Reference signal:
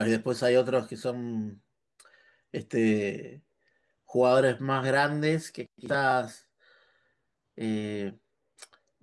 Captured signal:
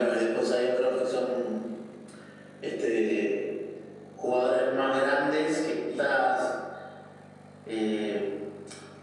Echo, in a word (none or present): present